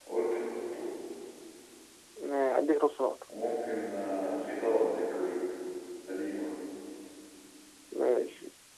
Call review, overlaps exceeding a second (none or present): none